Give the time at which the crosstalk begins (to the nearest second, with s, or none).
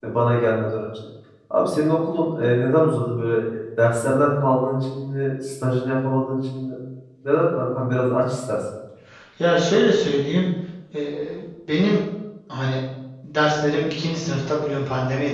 none